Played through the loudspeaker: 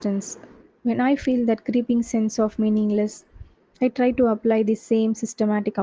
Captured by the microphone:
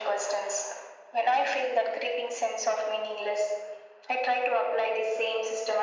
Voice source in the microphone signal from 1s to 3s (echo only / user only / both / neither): echo only